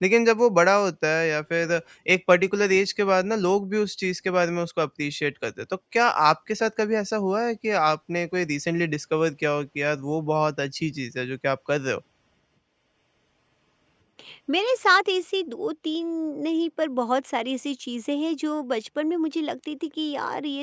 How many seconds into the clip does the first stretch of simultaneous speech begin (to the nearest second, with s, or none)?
none